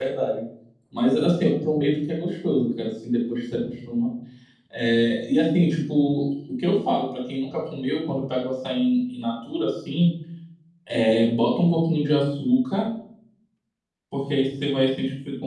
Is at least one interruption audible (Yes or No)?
No